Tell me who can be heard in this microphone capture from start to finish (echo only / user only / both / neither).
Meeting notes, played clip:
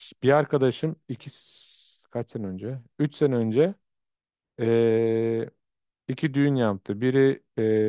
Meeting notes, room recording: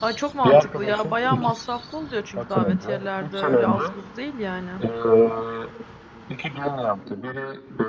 both